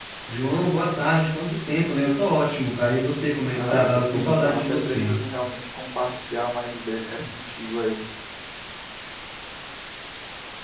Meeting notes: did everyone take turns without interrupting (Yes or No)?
No